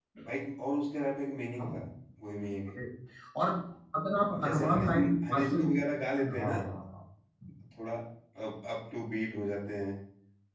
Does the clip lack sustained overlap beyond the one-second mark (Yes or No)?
No